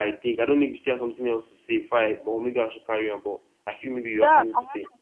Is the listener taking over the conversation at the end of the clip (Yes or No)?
Yes